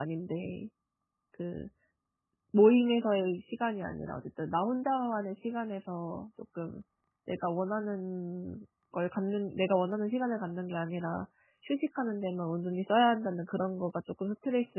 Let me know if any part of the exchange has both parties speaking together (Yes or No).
No